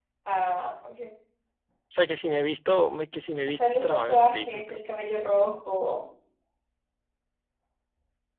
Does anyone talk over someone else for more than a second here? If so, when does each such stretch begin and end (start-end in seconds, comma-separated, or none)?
3.5-4.8